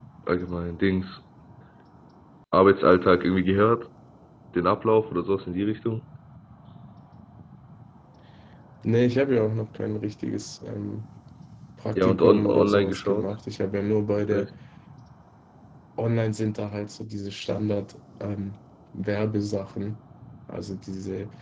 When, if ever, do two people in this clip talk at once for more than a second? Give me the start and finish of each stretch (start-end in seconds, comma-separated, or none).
12.0-13.3